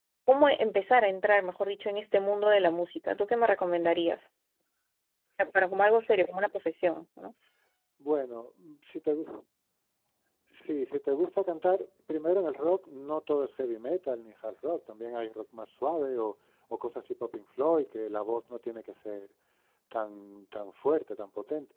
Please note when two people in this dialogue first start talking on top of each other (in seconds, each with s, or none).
none